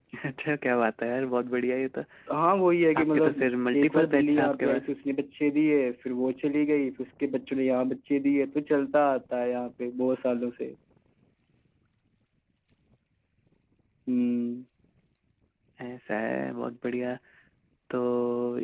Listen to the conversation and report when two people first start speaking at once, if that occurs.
3.0 s

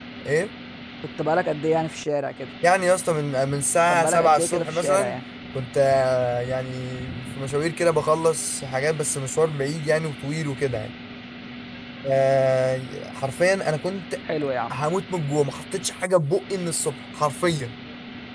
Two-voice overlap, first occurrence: 3.9 s

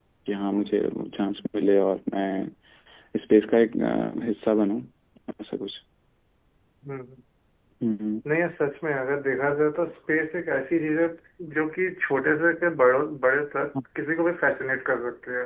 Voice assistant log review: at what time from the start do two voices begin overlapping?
none

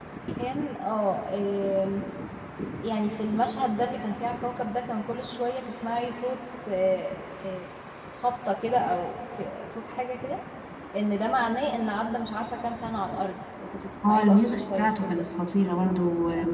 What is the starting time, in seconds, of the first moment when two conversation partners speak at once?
14.0 s

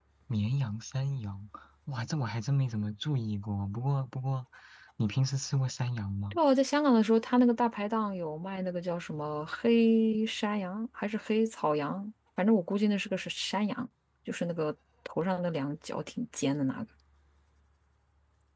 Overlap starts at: none

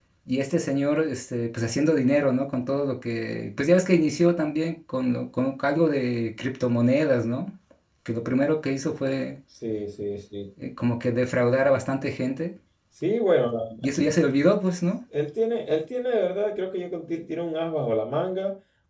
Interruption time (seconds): none

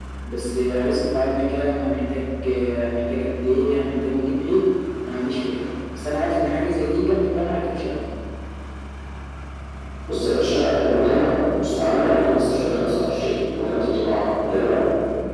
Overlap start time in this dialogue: none

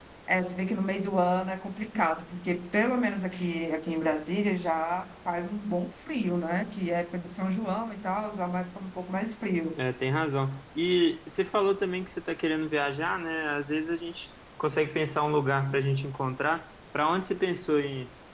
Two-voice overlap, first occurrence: none

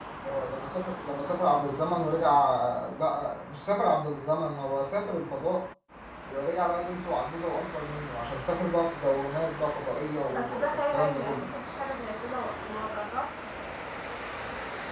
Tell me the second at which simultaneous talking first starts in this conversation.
10.3 s

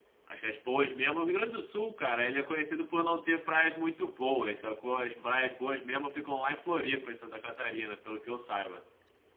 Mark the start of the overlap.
none

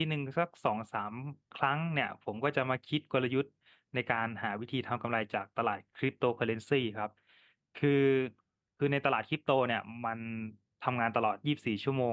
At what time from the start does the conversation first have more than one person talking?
none

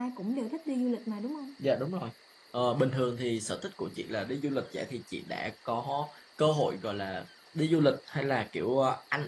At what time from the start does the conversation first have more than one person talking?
none

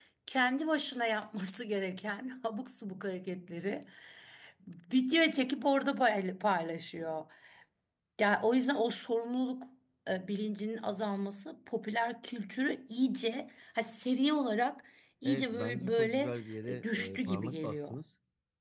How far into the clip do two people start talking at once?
15.2 s

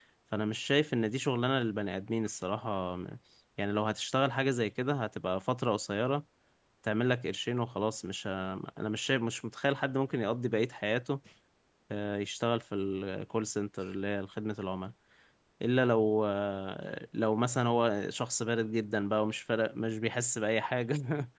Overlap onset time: none

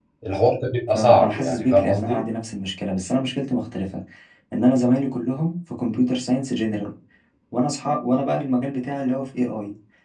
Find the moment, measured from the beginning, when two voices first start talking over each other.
0.9 s

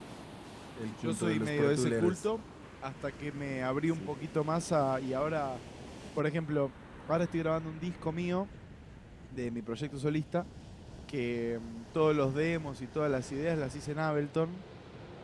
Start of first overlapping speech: 1.0 s

